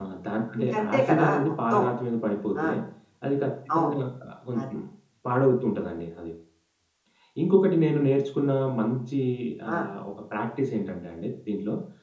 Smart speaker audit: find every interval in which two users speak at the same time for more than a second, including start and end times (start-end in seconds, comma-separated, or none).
0.6-1.8